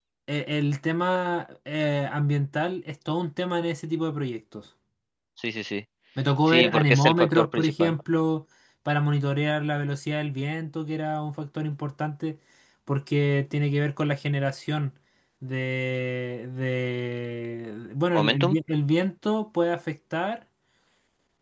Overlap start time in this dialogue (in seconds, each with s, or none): 6.5 s